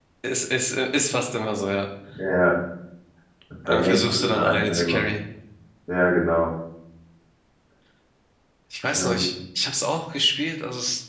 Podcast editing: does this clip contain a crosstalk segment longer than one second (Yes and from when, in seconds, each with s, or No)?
Yes, from 3.7 s